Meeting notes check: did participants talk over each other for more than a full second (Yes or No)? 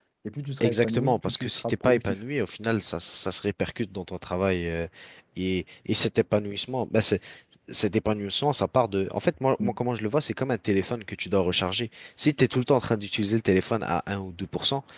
Yes